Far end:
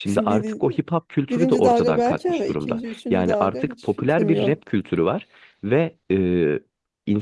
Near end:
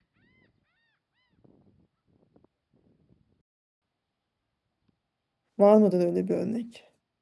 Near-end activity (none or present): present